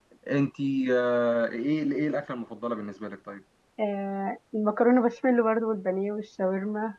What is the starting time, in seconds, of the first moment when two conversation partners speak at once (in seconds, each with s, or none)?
none